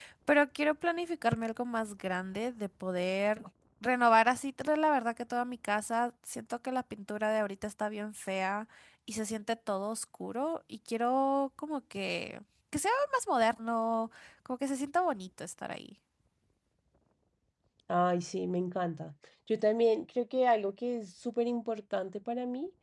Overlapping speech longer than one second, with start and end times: none

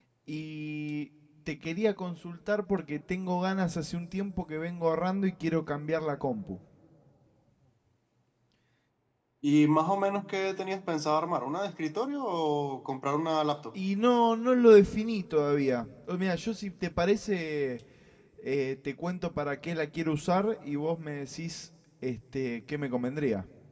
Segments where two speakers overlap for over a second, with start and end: none

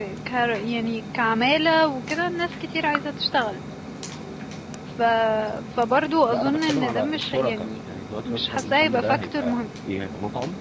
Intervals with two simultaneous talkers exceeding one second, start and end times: 6.3-7.7, 8.3-9.6

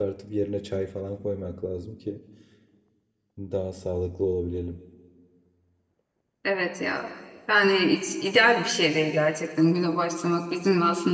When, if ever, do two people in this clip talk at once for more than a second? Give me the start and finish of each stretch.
none

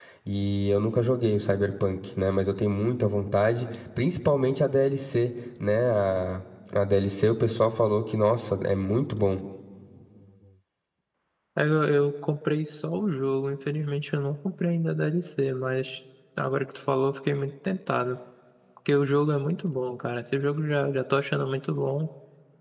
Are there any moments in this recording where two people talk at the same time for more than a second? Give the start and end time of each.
none

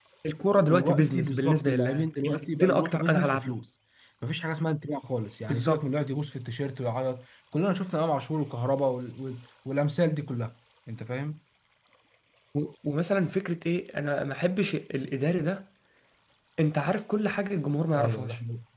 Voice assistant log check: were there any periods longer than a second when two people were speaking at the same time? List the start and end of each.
0.7-3.5

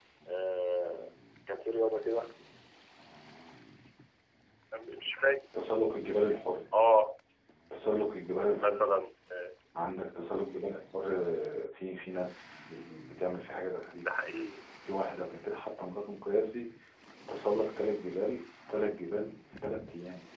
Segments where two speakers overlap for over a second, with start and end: none

